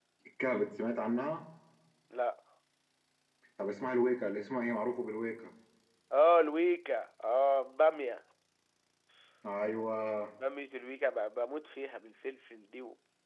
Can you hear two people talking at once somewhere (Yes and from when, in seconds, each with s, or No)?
No